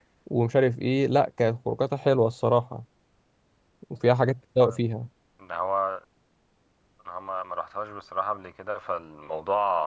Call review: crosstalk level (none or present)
none